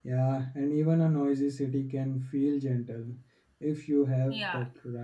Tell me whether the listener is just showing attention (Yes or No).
No